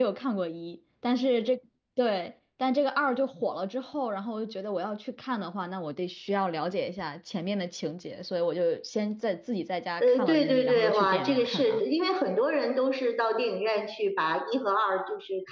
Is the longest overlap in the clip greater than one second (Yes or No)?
Yes